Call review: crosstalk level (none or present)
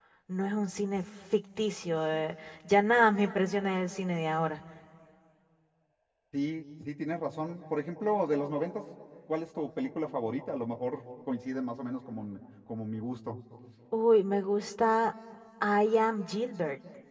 none